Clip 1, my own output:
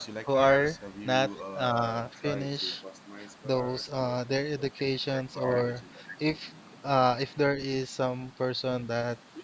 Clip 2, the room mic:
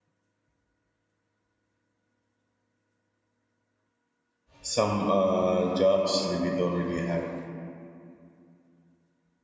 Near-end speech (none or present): present